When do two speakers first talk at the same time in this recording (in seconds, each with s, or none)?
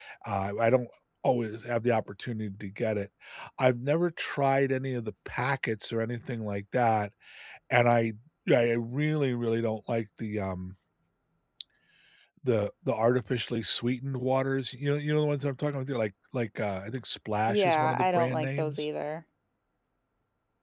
17.5 s